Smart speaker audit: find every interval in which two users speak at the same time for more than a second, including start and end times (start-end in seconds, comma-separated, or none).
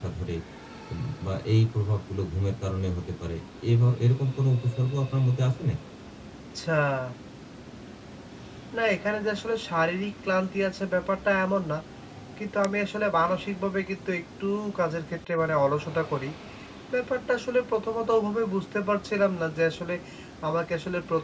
none